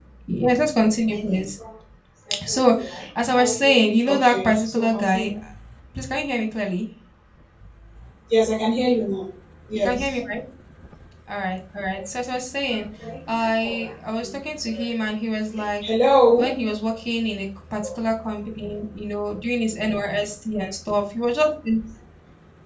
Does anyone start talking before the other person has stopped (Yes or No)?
Yes